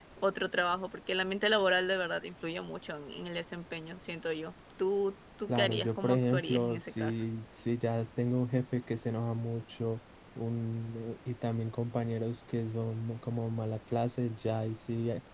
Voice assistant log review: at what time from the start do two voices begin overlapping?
5 s

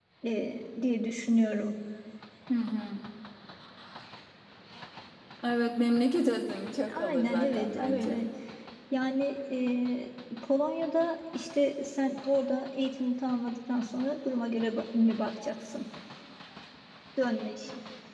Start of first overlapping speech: 7 s

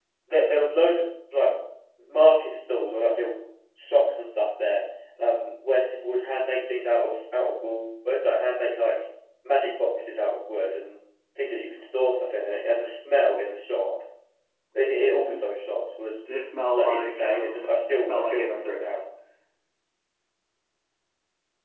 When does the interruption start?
17 s

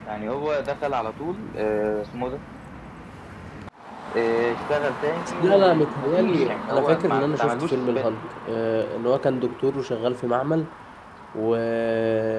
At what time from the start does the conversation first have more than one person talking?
5 s

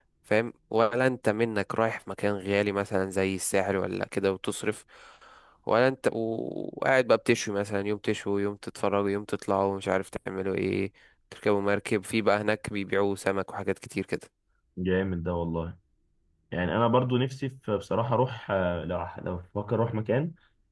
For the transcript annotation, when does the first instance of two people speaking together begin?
none

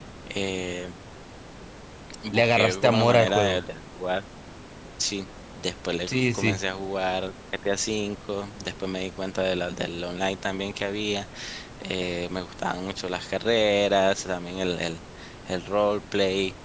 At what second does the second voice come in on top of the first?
2 s

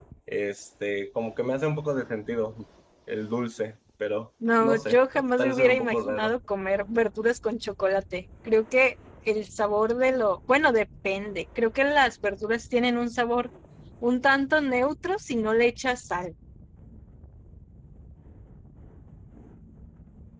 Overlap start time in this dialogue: 4 s

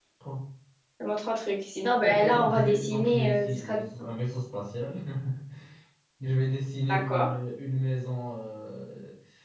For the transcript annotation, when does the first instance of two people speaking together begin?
2 s

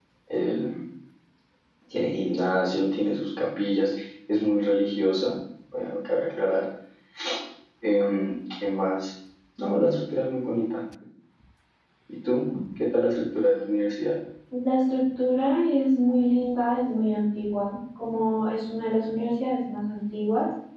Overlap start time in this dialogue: none

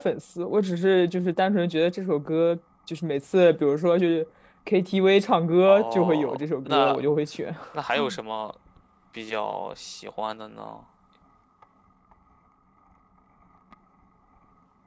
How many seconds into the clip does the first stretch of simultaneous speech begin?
6 s

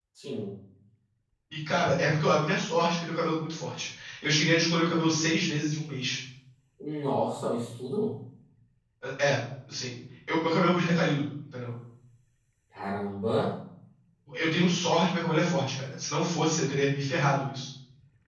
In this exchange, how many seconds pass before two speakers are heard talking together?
none

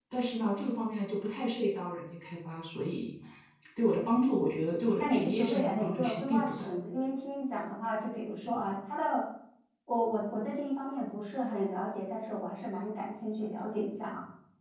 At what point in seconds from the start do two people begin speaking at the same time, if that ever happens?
5 s

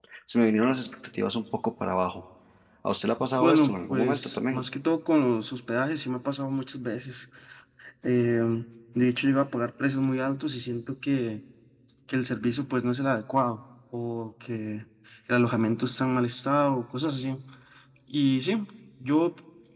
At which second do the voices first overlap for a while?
3 s

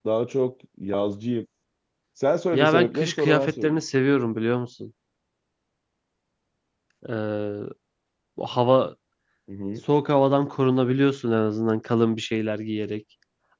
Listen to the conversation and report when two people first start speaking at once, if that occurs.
3 s

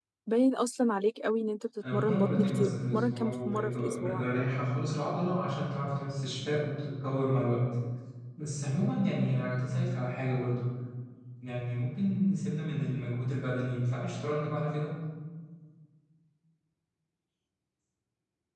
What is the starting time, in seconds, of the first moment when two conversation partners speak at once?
2 s

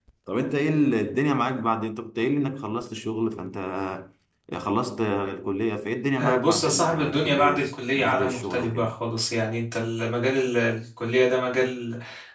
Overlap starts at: 6 s

